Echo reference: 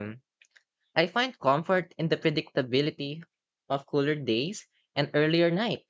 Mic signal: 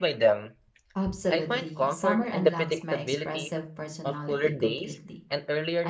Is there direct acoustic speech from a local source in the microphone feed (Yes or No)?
Yes